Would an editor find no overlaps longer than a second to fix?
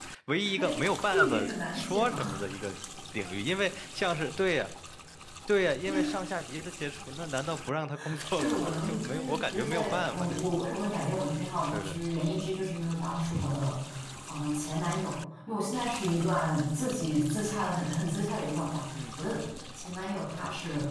No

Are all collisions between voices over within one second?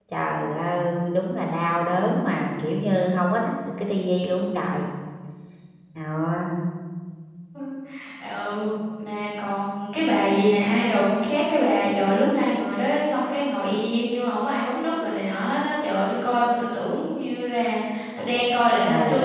Yes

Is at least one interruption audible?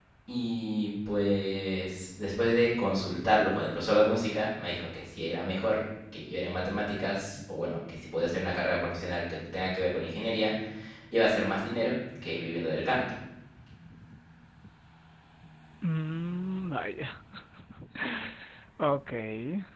No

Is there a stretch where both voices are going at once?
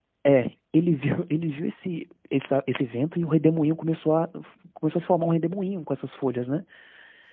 No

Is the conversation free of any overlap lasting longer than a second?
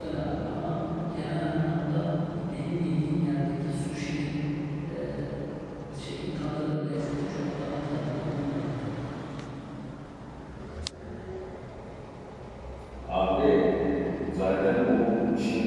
Yes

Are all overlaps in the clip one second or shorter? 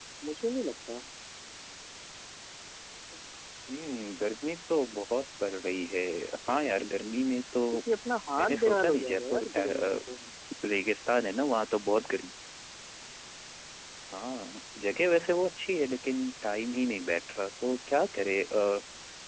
No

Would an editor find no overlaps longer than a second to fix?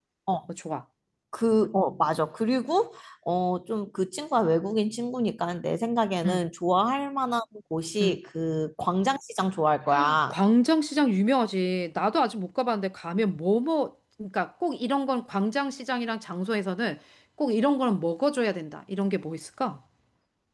Yes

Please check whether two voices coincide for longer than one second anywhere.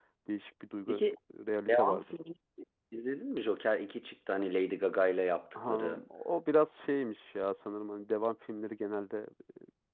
No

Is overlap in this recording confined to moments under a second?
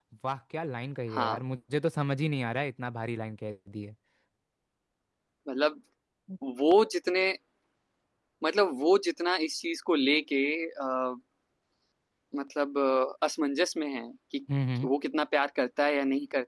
Yes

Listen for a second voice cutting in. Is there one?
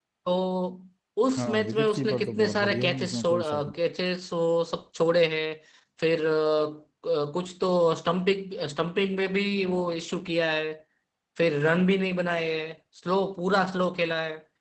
Yes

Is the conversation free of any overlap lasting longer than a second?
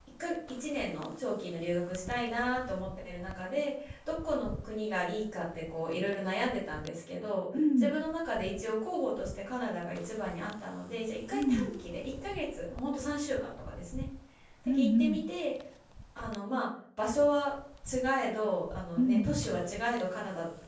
Yes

